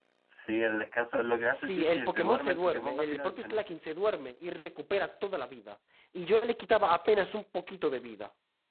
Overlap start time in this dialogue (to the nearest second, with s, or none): 1 s